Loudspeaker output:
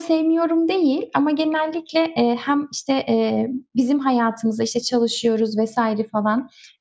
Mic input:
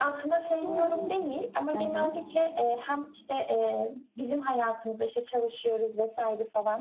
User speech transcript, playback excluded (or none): Soğanlı. Hı hı.